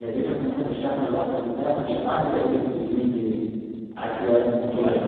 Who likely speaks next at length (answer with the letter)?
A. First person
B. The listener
A